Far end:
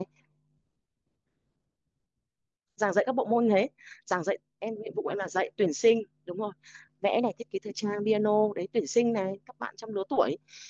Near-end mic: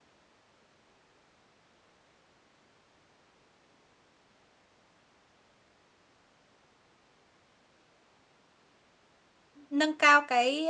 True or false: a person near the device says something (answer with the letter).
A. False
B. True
B